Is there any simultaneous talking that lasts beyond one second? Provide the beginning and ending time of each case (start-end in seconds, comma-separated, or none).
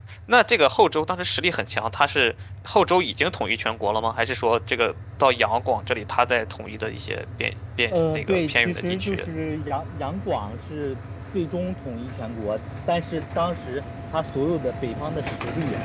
7.9-9.2